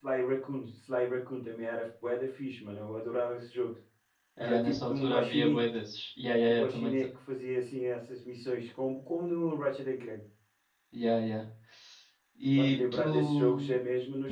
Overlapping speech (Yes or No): Yes